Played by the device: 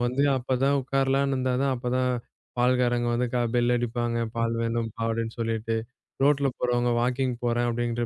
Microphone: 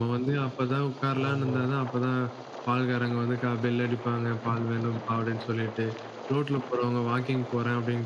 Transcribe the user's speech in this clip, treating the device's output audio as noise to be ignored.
ஆமா.

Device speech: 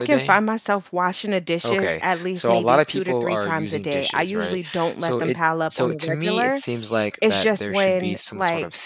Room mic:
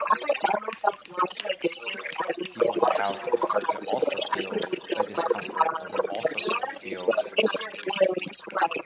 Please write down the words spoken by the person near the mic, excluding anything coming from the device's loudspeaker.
the people in your house will start to also feel the discomfort or they'll also start to feel

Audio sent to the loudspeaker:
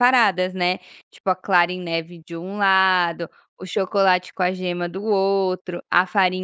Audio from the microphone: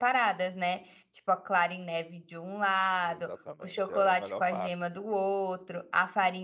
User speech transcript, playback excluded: Exatamente, é é a melhor parte,

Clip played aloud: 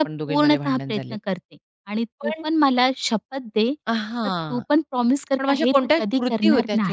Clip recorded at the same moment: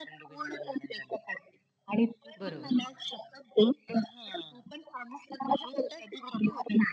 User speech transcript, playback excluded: बरोबर.

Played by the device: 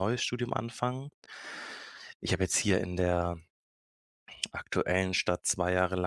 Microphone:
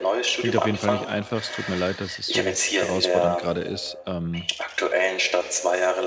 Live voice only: klingt auf jeden Fall nicht einfach. Es tut mir leid, dass es so herausfordernd gerade ist. Ähm

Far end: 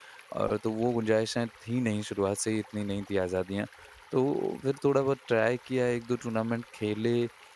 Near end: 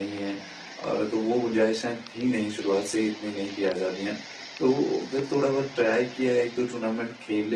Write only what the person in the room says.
none

